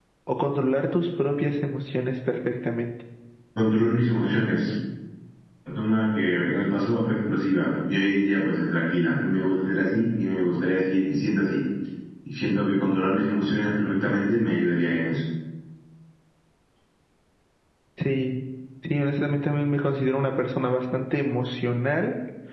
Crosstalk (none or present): none